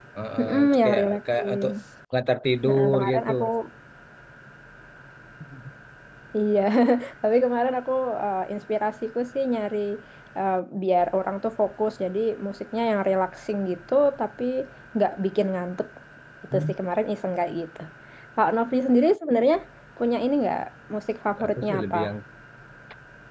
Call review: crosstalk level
present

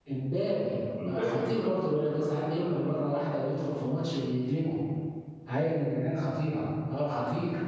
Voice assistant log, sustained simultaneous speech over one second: present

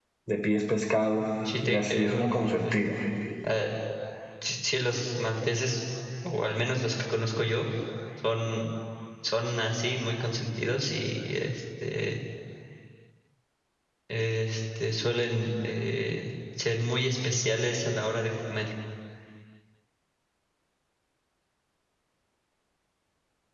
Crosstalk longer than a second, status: present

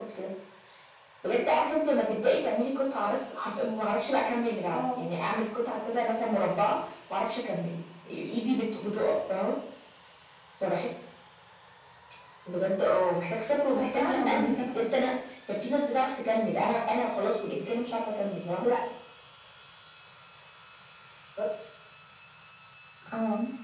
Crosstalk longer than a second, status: present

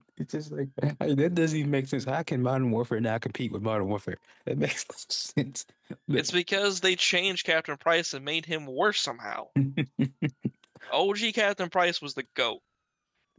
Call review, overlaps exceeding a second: none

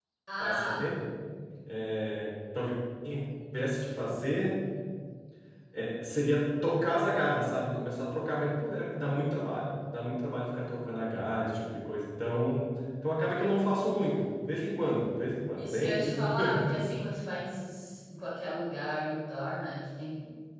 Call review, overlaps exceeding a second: present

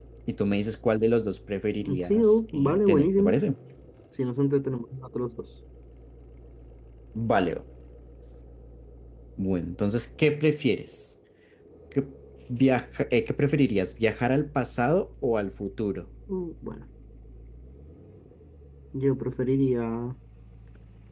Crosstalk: present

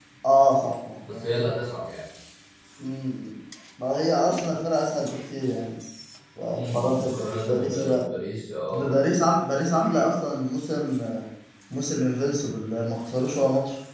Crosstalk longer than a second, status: present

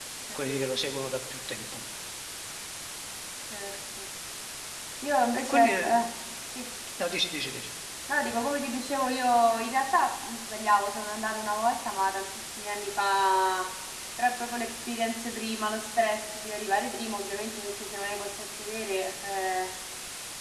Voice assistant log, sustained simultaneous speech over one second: none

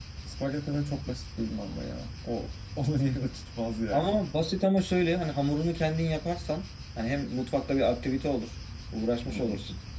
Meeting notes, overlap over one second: none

